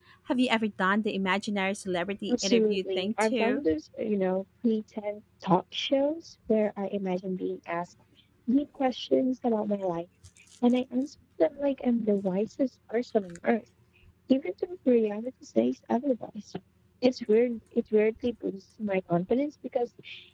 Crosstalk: present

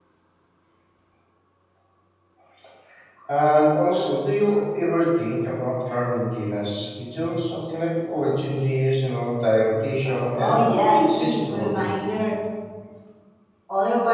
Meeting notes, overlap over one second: present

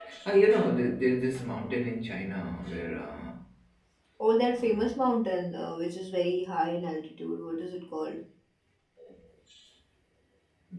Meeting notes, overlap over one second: none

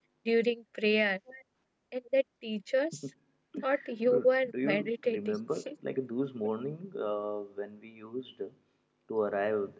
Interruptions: present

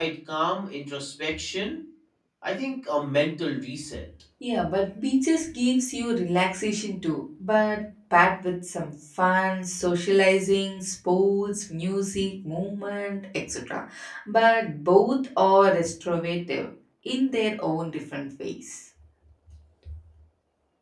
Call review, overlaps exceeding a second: none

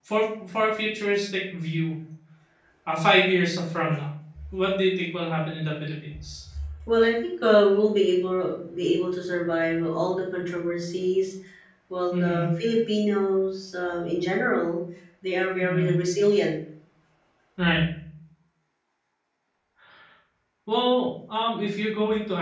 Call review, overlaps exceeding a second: none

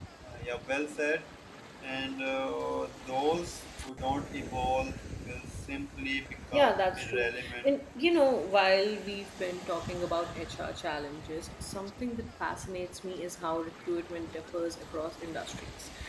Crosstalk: present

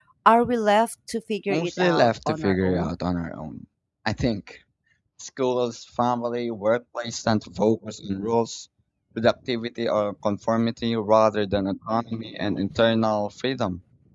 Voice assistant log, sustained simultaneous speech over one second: present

